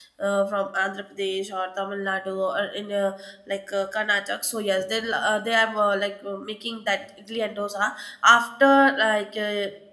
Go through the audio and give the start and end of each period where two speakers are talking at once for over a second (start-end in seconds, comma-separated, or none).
none